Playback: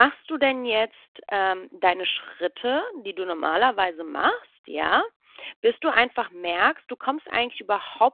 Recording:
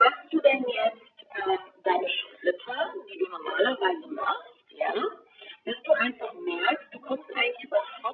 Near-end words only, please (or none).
none